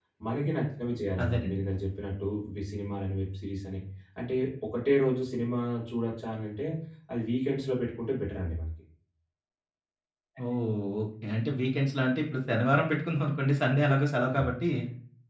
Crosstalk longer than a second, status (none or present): none